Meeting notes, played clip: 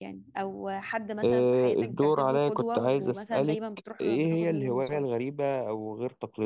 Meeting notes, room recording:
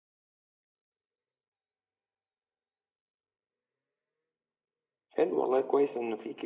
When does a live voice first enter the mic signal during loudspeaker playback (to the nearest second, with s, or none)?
5 s